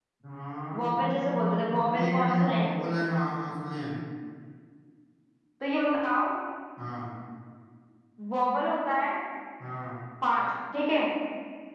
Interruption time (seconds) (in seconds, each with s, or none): 0.8 s